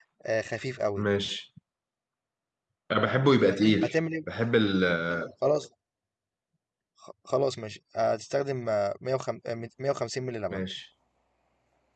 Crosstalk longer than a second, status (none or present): none